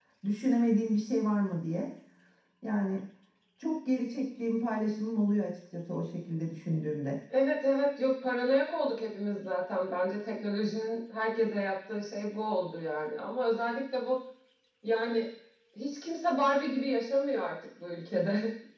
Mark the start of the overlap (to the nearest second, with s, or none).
none